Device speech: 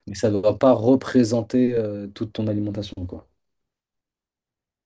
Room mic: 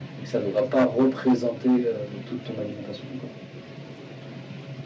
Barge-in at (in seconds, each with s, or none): none